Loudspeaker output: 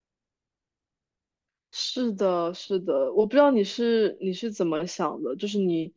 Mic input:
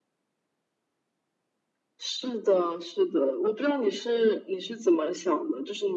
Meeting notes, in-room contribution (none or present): none